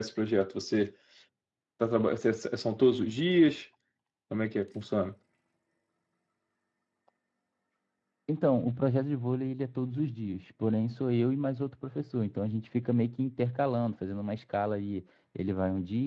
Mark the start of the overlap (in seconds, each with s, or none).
none